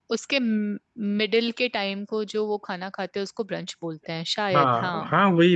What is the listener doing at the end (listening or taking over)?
taking over